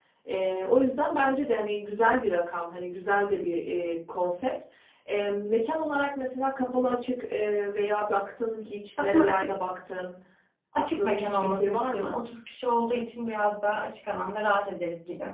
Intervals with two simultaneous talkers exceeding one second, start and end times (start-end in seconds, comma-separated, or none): 10.8-12.2